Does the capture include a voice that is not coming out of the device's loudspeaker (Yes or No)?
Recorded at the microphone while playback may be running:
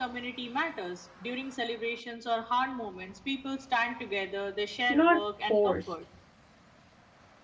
Yes